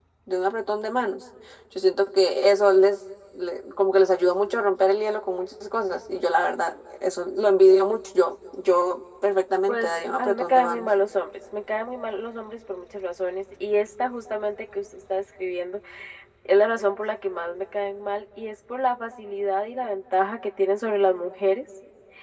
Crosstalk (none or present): present